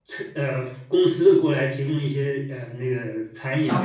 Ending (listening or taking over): taking over